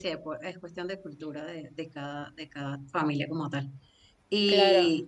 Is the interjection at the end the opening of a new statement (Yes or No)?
No